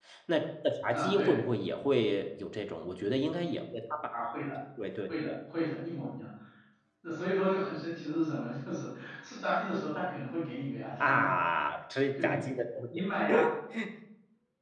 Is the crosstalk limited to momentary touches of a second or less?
Yes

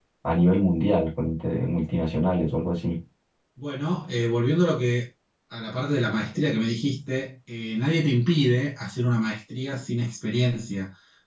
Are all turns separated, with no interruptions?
Yes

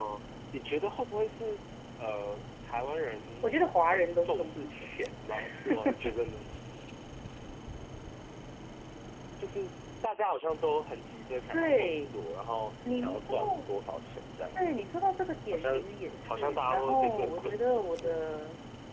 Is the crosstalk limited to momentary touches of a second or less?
No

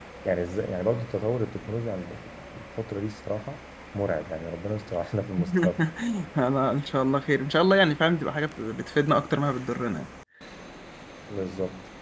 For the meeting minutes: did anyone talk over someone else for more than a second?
No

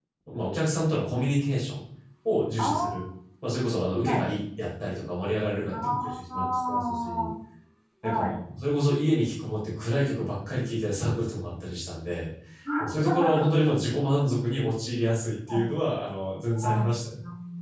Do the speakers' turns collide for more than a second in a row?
Yes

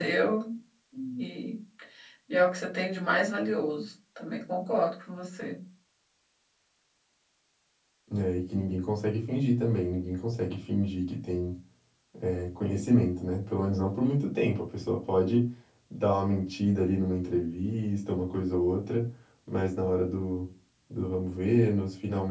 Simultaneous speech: No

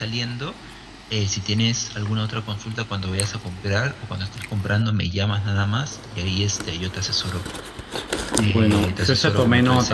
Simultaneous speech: Yes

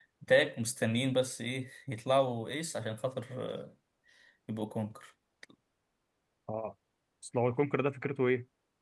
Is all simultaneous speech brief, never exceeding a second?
Yes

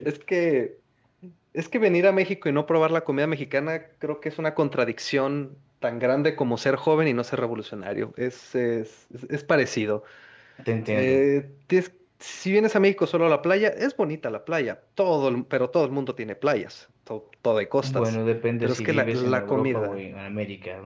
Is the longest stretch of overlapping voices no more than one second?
No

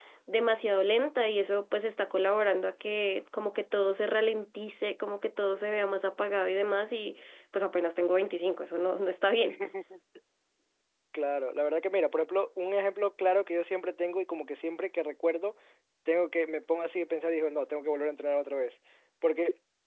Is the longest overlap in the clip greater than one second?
No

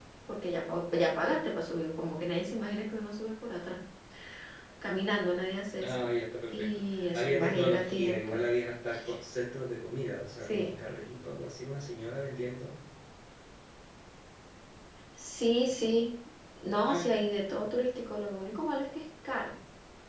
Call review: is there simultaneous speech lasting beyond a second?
Yes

